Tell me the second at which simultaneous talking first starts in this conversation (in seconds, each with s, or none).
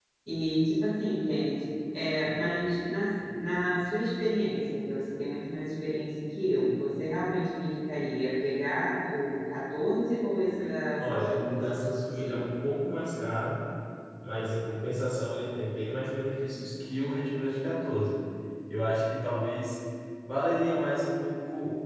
11.0 s